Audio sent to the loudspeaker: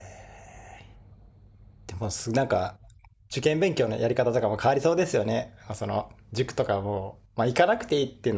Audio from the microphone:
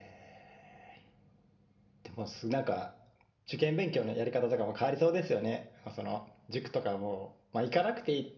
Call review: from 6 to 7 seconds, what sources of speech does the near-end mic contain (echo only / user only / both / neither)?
echo only